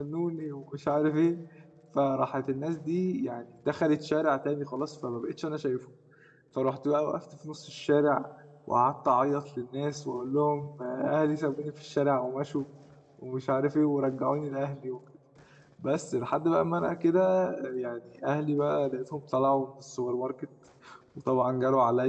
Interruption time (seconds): none

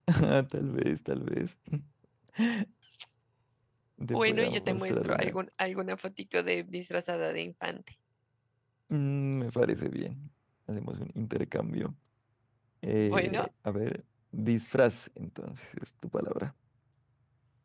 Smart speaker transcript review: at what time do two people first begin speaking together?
4 s

